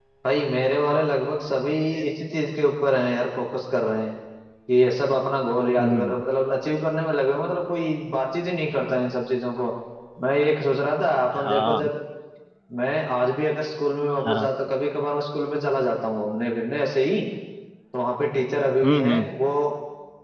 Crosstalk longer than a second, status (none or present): none